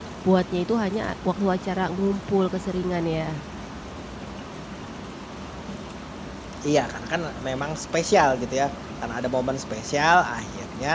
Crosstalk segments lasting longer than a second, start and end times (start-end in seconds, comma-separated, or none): none